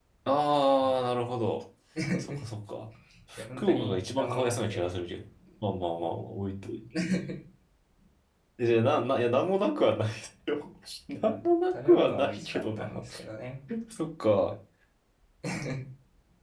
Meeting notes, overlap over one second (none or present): present